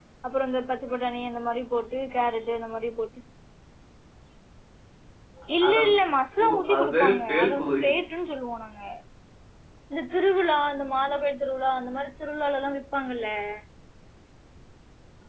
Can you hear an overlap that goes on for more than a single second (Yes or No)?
Yes